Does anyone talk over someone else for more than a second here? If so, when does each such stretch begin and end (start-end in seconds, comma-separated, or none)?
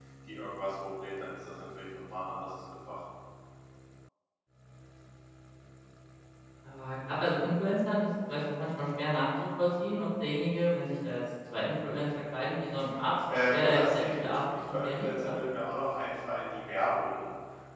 13.5-15.3